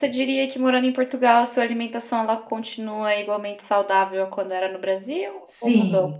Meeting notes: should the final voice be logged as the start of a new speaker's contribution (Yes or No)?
Yes